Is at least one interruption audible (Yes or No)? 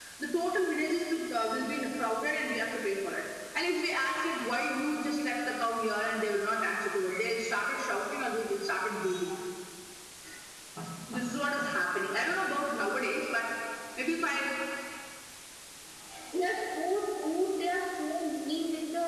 No